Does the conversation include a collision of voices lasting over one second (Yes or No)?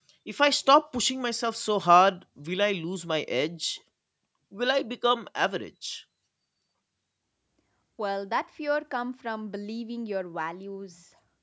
No